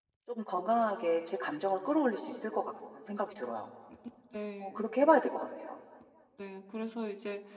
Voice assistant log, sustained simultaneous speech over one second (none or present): none